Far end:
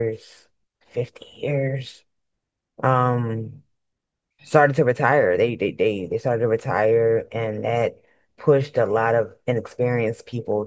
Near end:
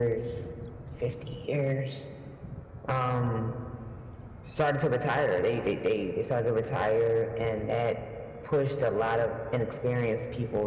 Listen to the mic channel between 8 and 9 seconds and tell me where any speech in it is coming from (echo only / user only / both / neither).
echo only